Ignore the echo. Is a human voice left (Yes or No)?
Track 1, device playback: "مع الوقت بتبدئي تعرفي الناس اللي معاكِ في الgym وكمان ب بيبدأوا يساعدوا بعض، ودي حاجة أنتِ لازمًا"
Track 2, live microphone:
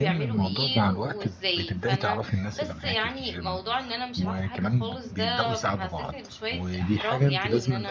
Yes